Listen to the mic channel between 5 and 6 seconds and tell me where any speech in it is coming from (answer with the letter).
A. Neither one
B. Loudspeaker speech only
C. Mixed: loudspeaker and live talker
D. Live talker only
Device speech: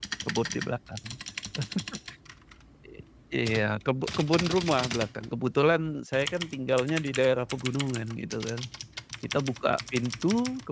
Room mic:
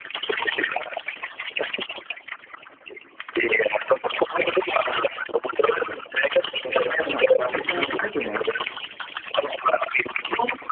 B